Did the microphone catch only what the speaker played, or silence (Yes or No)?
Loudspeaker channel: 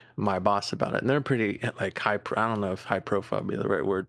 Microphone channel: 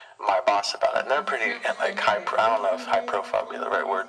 No